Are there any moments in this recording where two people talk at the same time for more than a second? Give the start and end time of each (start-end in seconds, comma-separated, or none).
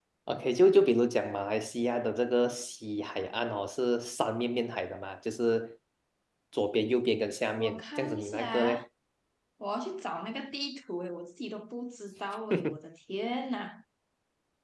7.6-8.8